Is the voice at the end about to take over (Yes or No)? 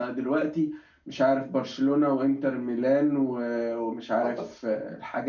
No